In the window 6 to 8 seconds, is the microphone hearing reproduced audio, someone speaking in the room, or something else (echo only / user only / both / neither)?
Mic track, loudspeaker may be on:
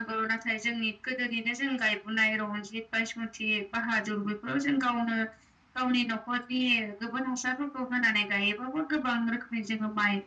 echo only